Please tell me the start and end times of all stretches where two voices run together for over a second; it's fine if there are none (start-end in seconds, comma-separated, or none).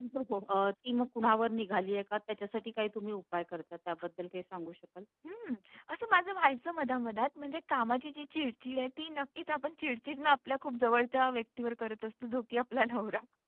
none